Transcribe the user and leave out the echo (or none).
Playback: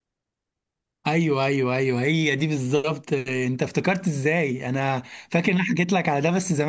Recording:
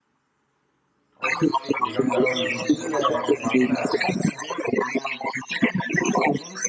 أوف دي جامدة أوي مش دي اللي كانت معمولة